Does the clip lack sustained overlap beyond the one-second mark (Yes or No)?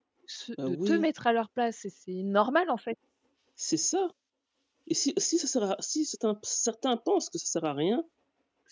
Yes